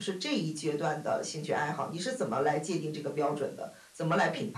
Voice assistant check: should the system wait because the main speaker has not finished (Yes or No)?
No